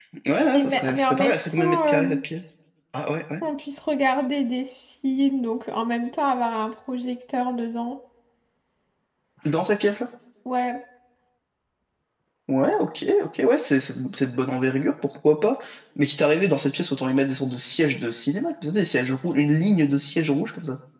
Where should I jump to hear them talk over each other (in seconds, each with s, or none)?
0.5 s